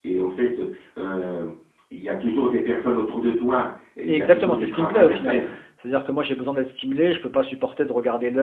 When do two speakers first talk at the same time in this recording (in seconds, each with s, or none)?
4.1 s